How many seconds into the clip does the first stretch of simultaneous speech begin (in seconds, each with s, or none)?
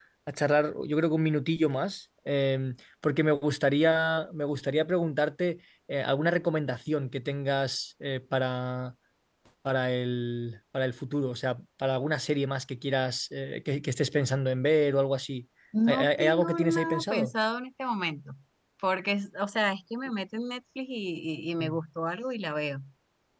15.9 s